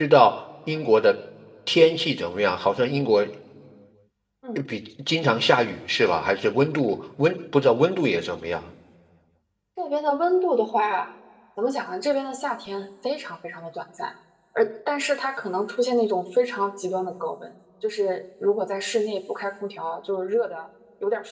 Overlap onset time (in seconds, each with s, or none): none